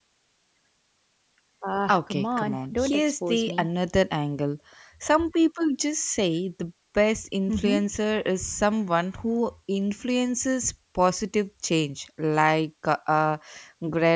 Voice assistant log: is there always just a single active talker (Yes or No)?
No